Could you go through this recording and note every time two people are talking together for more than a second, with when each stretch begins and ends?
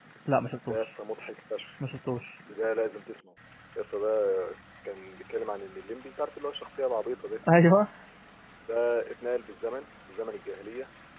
none

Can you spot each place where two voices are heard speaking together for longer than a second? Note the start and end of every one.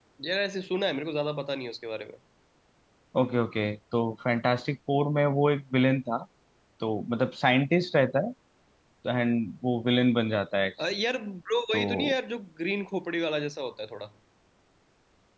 none

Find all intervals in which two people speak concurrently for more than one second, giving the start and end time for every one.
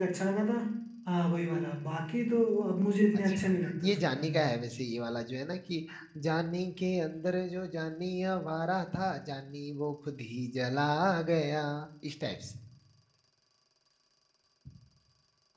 3.1-4.4

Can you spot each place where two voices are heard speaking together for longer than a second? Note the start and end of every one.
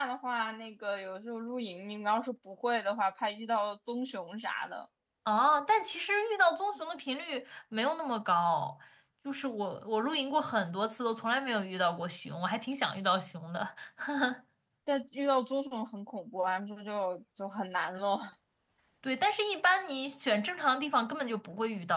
none

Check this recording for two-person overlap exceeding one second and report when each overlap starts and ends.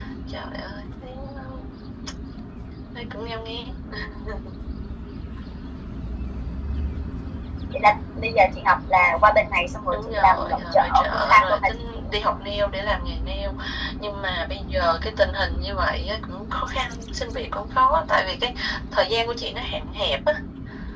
9.9-11.7

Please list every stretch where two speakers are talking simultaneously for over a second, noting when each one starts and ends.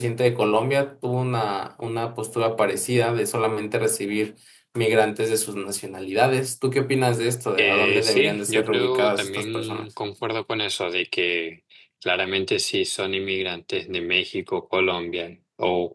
7.6-9.8

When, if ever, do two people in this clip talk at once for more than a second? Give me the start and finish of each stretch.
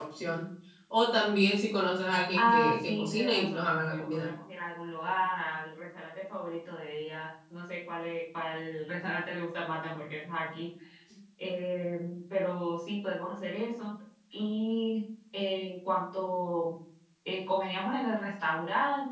2.4-4.3

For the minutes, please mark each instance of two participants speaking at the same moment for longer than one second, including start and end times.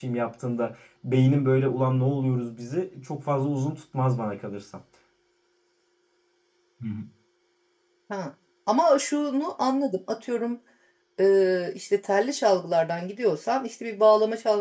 none

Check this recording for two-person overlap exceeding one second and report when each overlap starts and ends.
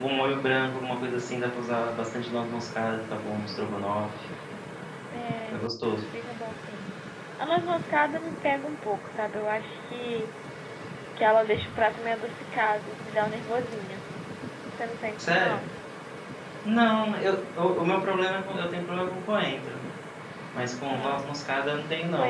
none

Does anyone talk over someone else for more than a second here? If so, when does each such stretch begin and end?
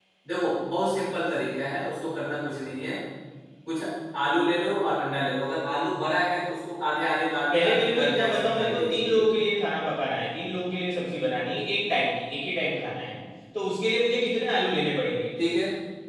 7.5-9.2

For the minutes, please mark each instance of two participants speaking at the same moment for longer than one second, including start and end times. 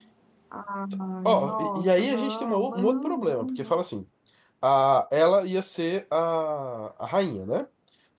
1.3-3.8

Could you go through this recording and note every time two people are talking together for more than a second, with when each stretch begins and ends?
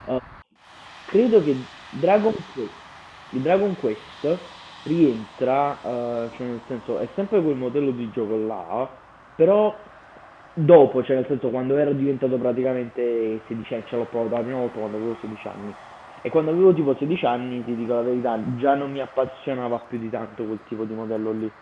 none

